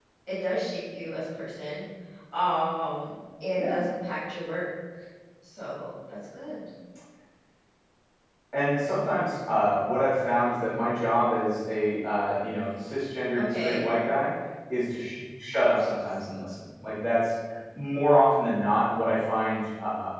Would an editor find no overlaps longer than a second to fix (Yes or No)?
Yes